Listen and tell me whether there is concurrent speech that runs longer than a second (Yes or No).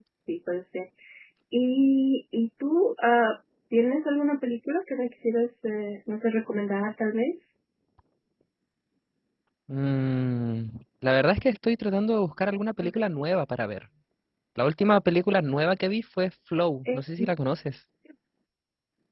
No